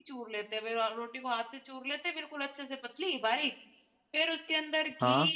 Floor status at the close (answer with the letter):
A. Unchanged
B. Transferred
A